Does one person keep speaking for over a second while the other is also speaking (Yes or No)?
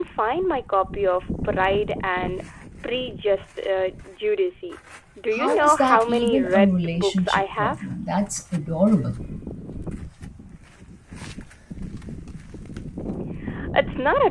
Yes